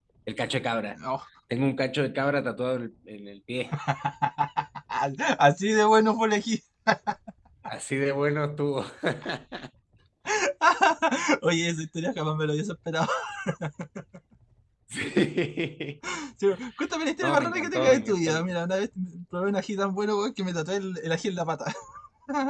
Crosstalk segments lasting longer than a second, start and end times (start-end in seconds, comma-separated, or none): 17.2-18.4